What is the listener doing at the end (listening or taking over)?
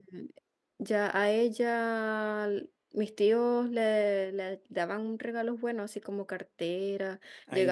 listening